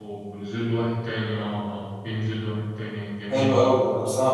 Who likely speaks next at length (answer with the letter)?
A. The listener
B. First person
A